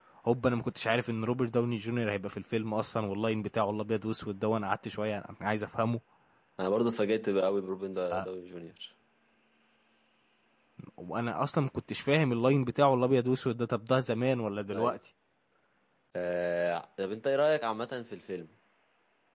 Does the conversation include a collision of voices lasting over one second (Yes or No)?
No